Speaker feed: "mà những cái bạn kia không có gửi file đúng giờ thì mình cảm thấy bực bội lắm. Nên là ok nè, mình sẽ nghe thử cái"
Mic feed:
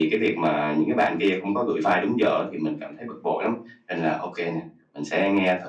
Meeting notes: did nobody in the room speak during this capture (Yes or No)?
Yes